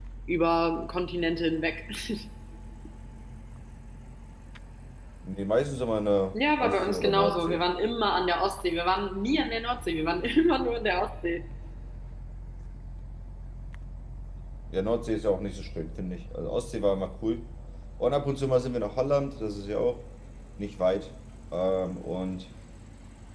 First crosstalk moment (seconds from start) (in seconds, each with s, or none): 6.3 s